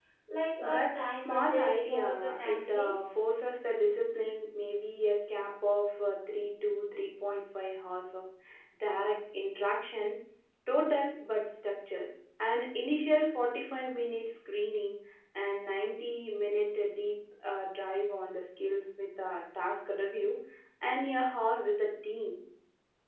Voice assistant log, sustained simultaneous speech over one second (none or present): present